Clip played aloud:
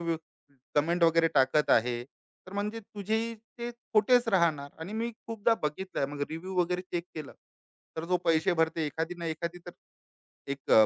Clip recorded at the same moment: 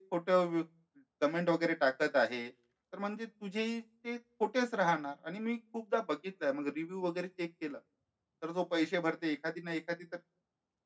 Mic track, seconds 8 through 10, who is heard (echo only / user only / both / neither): echo only